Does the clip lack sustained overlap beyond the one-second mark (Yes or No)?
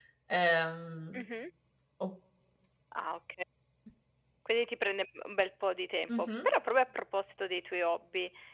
Yes